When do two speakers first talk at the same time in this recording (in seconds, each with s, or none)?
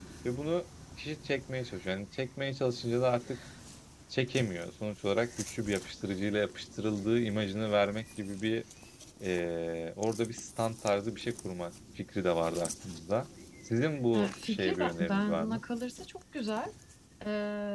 14.1 s